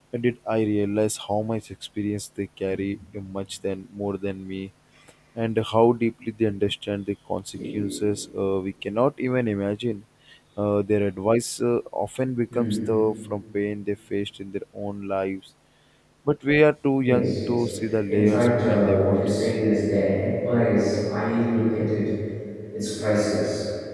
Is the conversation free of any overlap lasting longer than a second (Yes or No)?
No